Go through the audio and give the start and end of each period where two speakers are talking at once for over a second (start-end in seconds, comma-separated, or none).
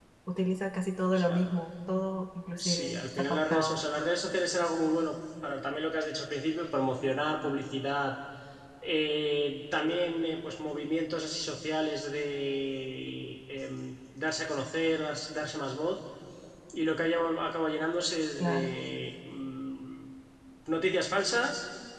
2.6-3.8